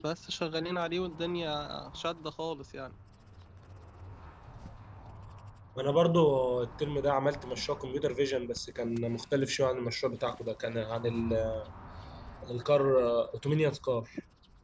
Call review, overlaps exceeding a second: none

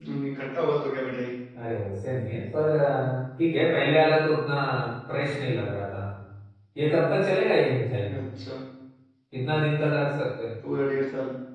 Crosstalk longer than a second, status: none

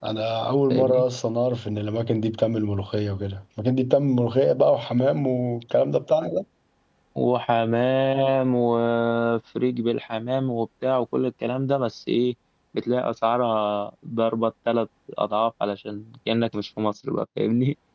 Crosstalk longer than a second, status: none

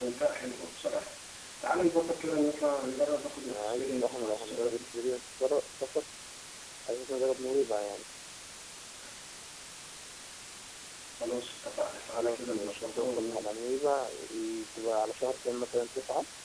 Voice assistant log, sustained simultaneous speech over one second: present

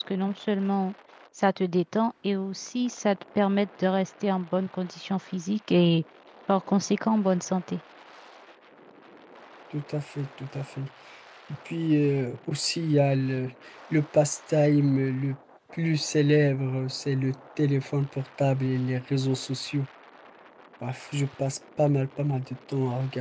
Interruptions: none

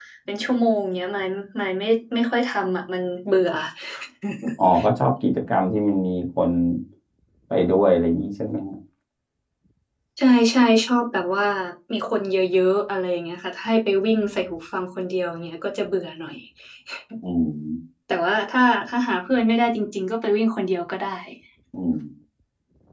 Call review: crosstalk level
none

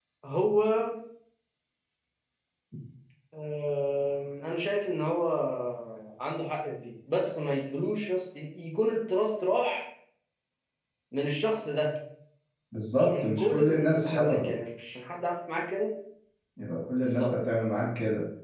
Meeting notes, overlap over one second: present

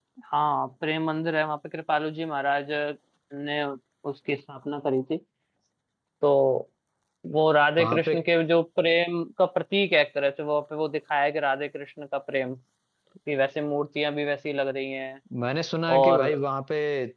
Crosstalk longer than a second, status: none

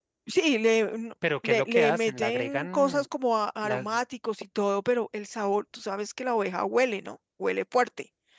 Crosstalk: present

